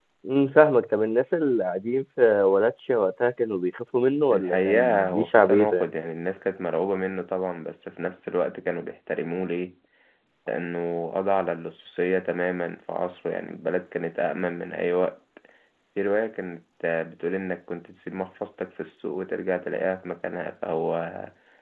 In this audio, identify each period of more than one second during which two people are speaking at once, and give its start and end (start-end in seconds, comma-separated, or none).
4.3-5.9